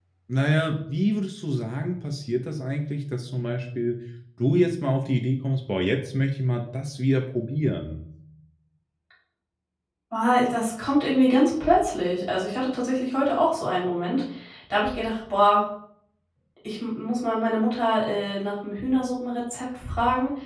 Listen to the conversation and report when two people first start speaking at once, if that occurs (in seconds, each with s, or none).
none